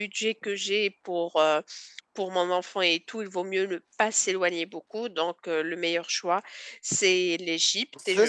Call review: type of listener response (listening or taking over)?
taking over